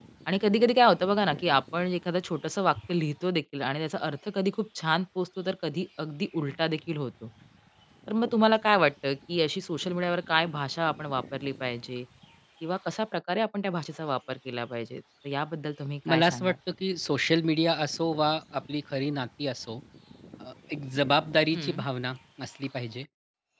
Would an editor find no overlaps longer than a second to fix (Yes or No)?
Yes